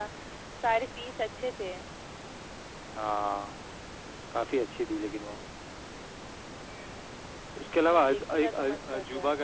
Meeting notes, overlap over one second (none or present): present